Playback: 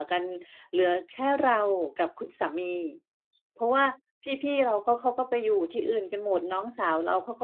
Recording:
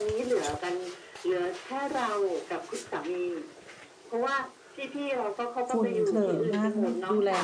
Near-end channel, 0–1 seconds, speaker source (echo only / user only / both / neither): echo only